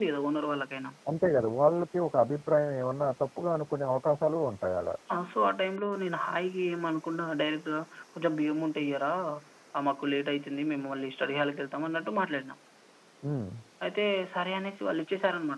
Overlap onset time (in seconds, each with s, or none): none